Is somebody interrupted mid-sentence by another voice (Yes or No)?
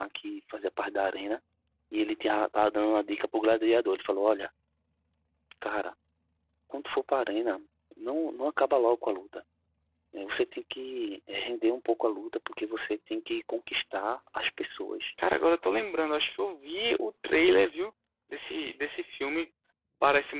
No